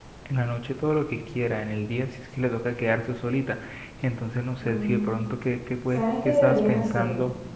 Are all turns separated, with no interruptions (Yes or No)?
No